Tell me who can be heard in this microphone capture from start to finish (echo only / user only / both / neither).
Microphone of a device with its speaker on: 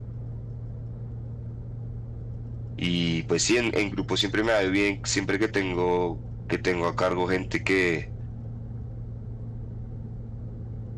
user only